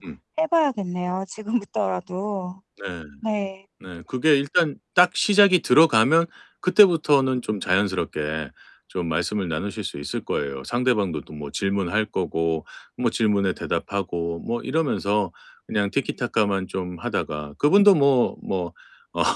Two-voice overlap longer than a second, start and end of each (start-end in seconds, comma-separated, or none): none